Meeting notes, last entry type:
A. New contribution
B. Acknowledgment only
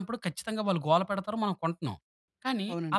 B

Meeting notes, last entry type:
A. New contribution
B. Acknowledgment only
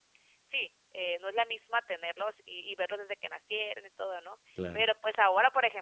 B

